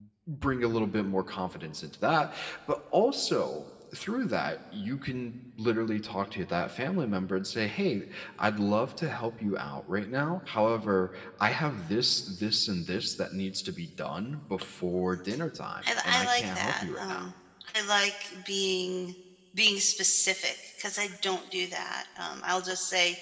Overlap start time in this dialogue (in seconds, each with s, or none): 15.8 s